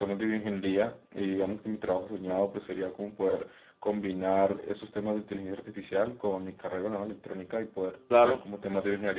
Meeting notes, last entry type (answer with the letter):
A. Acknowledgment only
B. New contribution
A